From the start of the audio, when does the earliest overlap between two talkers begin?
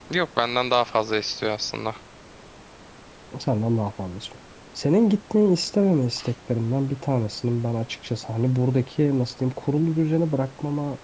none

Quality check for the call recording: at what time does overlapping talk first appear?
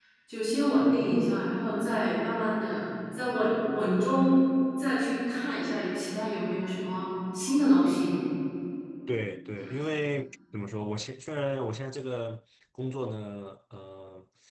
none

